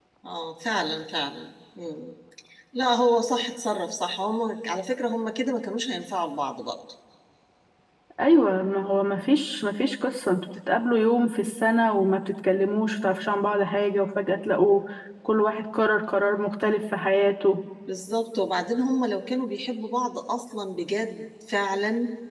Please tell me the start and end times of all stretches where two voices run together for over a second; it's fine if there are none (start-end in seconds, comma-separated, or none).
none